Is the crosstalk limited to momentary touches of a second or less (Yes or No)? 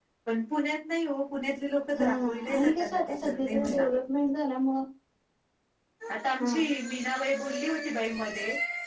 No